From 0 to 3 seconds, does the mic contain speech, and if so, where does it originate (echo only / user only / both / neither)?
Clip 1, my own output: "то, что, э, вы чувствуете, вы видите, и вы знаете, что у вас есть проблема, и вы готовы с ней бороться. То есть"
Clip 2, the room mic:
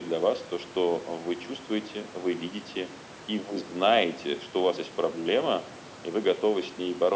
echo only